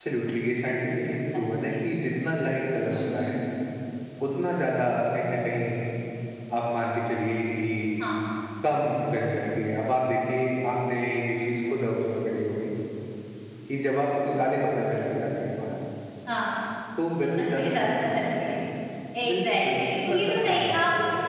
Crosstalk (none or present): present